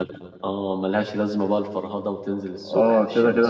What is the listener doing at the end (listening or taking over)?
taking over